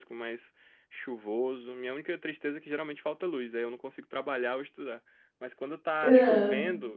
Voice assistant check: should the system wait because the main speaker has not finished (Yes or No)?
Yes